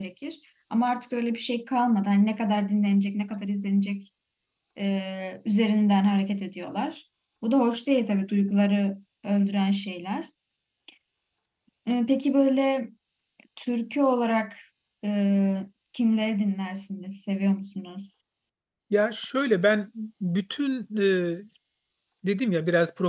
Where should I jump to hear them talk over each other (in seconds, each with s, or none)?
none